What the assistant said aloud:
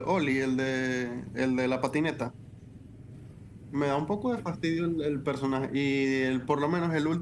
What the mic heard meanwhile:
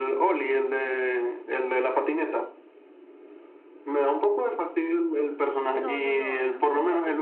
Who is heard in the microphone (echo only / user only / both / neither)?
both